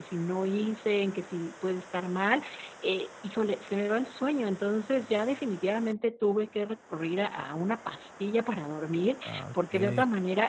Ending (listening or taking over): listening